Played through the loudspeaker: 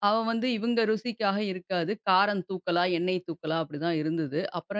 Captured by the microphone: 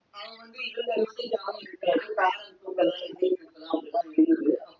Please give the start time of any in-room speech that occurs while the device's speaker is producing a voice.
none

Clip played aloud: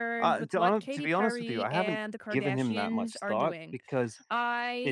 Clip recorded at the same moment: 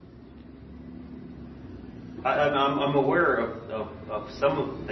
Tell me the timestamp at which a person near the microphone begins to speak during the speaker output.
2.2 s

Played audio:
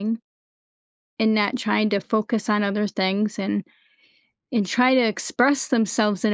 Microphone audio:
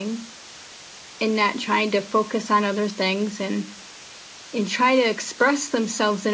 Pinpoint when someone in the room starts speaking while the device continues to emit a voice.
none

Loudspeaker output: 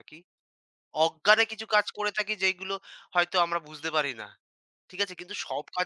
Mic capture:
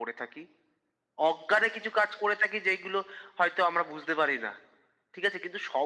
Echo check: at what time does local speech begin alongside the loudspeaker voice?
none

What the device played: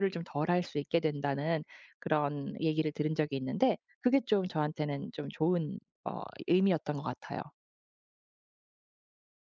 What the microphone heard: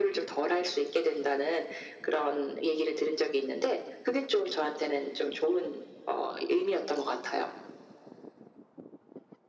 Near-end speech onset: none

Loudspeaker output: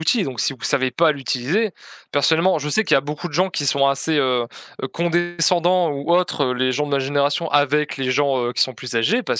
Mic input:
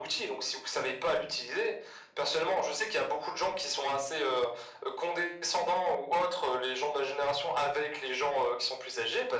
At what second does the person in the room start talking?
none

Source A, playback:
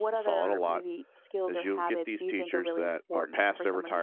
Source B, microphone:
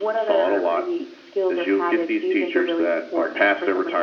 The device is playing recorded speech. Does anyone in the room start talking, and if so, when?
none

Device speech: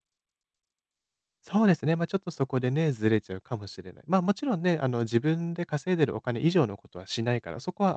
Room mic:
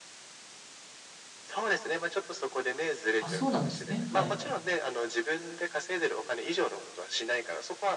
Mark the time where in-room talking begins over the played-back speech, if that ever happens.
3.2 s

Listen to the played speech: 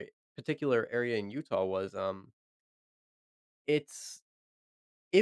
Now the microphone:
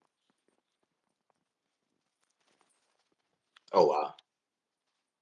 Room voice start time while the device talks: 3.7 s

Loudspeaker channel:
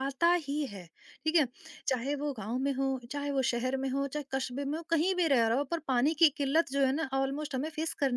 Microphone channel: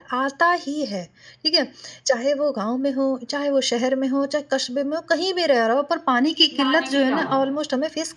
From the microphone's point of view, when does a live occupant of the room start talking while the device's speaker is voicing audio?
6.5 s

